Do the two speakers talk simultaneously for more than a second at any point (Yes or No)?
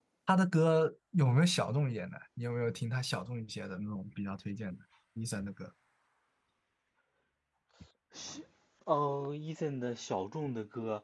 No